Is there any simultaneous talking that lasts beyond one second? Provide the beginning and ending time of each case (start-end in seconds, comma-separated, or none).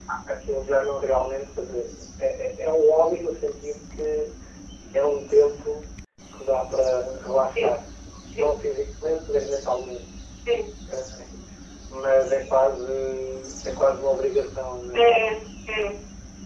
none